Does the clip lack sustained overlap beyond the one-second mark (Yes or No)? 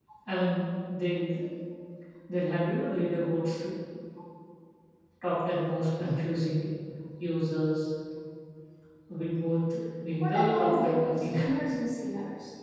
No